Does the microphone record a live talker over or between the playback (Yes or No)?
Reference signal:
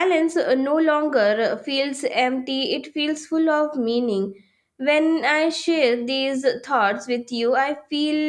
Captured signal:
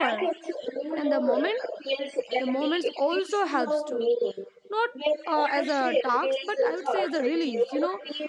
Yes